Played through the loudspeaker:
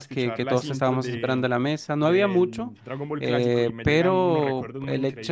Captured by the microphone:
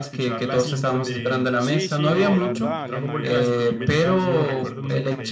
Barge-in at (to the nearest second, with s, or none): 2 s